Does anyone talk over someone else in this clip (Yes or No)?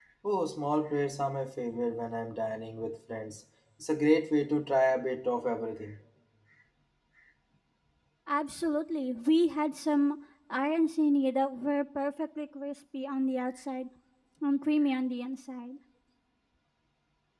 No